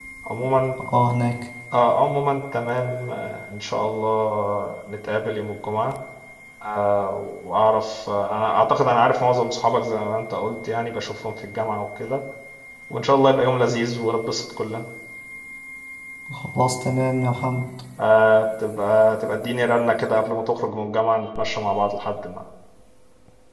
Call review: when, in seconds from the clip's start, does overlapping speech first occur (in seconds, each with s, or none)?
none